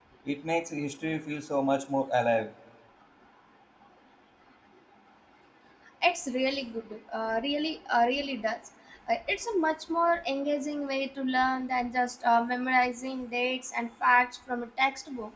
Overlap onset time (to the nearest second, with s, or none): none